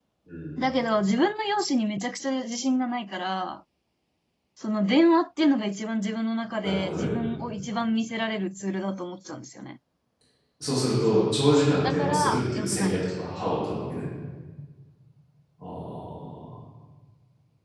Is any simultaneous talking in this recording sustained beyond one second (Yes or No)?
Yes